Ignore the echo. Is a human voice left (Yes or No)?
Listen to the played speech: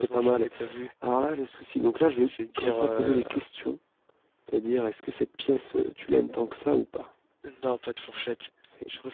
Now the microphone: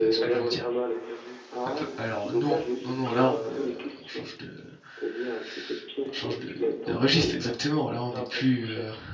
Yes